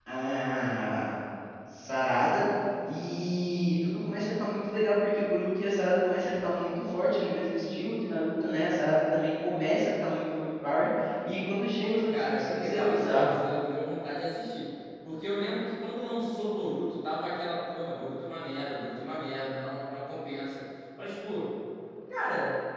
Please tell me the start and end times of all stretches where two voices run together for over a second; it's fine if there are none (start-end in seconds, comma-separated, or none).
11.8-13.3